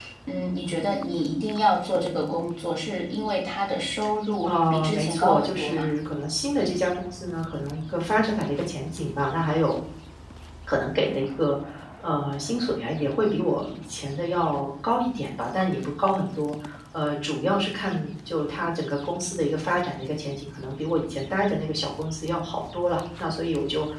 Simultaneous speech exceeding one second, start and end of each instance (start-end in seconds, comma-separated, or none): 4.4-5.9